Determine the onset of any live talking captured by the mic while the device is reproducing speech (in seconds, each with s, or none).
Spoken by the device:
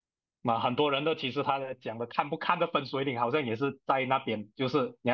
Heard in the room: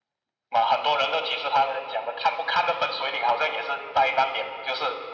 none